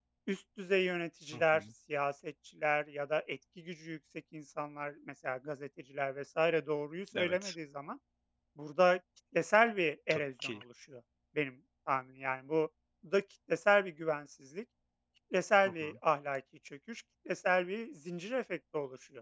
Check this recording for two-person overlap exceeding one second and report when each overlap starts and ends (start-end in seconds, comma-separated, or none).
none